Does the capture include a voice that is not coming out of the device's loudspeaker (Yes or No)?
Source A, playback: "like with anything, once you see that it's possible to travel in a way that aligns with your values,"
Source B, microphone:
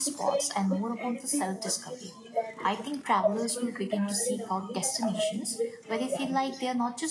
Yes